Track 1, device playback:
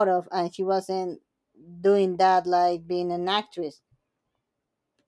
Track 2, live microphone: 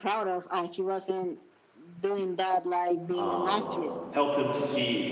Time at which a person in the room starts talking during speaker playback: 3 s

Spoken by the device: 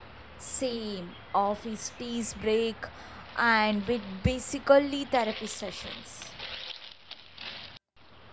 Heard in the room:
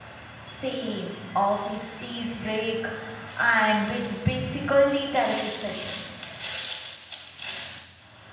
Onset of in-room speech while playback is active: none

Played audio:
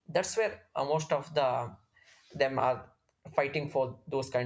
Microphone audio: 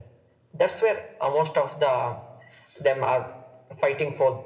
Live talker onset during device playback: none

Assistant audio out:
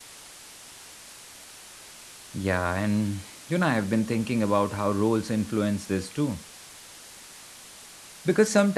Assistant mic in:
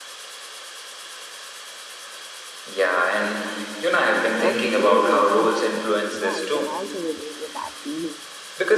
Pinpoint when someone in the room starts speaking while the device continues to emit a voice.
4 s

